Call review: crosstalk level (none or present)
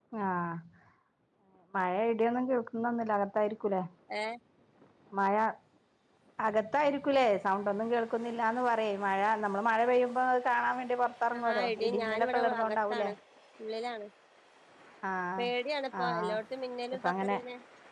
present